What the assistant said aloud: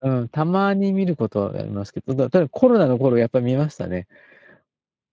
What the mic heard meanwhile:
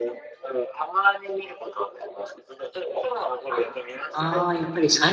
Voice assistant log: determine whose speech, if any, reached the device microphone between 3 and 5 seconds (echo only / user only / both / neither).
both